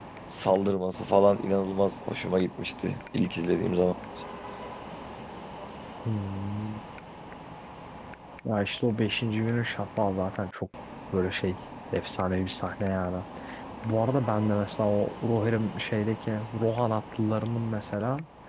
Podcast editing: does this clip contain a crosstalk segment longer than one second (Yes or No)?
No